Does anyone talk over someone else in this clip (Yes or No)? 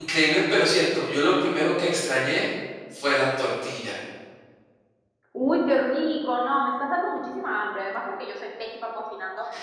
No